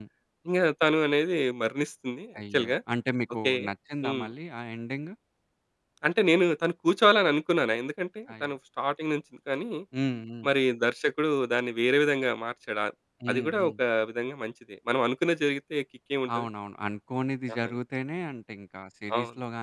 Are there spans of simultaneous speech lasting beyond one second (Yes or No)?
No